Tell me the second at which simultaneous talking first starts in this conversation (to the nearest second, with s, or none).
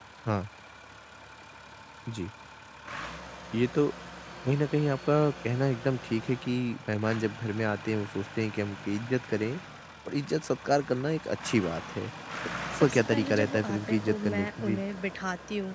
13 s